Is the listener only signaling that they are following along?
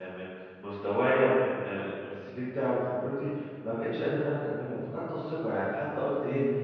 Yes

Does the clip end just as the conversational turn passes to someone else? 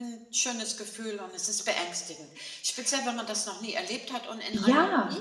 No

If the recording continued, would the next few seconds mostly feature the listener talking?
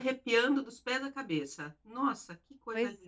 Yes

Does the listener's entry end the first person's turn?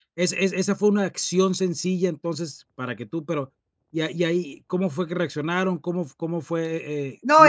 Yes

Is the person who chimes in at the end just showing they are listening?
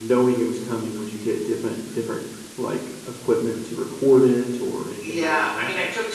No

